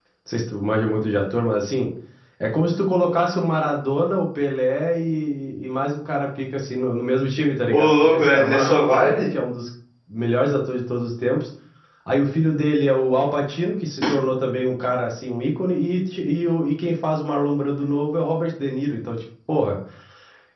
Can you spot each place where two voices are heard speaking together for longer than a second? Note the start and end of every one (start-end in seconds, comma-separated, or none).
7.7-9.2